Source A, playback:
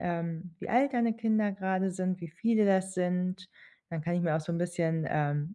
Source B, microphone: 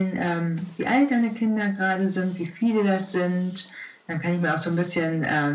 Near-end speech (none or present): none